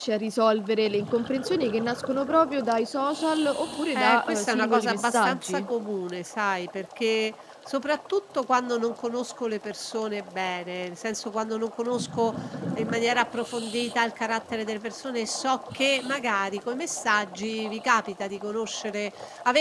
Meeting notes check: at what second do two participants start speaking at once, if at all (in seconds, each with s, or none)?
4.0 s